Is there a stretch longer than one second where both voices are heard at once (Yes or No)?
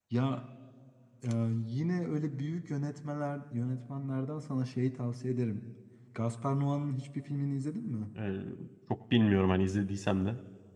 No